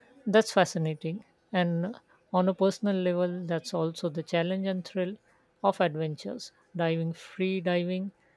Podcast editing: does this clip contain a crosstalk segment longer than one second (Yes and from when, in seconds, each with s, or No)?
No